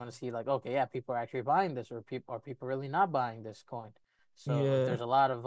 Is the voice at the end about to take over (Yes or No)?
No